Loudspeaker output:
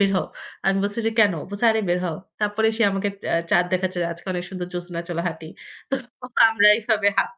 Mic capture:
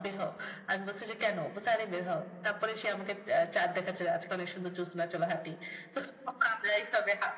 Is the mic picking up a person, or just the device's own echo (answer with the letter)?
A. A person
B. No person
B